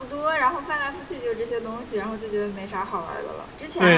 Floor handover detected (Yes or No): Yes